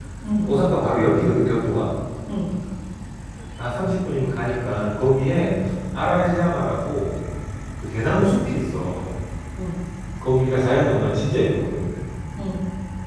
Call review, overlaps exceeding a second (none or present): none